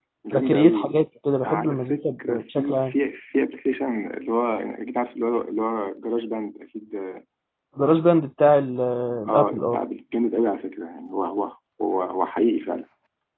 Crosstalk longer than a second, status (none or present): present